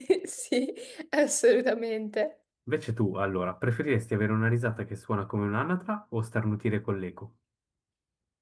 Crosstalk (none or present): none